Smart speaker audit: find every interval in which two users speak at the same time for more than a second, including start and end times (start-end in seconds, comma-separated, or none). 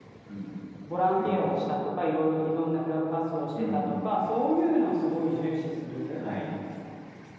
none